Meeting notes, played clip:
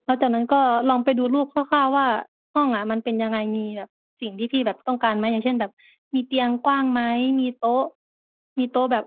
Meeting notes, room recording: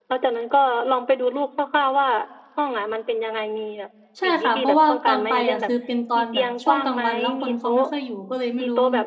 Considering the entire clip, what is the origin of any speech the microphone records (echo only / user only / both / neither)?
both